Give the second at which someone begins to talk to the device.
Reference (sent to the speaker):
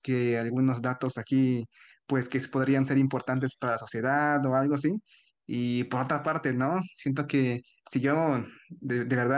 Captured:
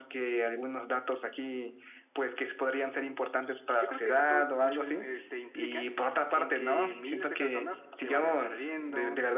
3.8 s

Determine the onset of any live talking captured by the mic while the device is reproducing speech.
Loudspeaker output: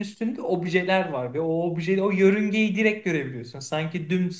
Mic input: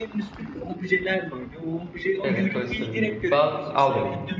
2.2 s

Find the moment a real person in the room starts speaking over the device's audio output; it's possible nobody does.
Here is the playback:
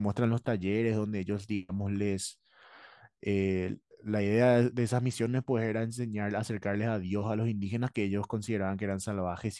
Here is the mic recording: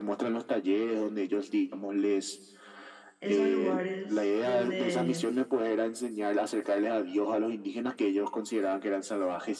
3.2 s

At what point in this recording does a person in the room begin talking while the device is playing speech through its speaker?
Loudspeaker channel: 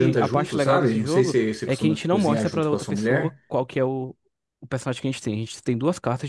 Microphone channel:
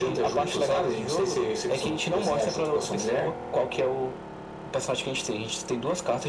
none

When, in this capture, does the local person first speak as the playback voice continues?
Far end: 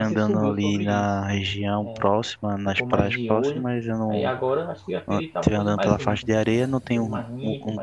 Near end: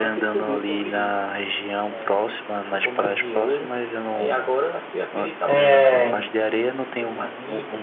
5.4 s

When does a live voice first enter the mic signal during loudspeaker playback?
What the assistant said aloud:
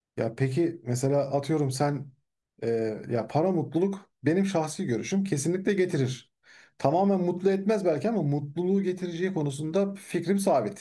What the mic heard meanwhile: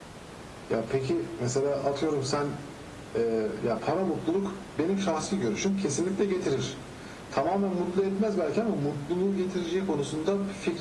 none

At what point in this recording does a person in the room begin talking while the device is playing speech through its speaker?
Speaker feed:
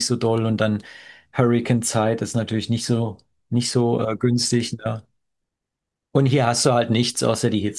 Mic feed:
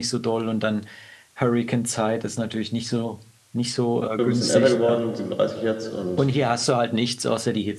4.2 s

